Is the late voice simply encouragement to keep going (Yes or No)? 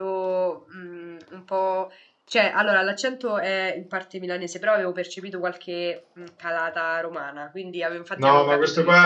No